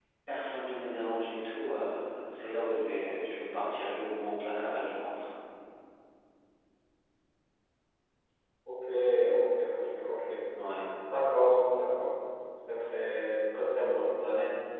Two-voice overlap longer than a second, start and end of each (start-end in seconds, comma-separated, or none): none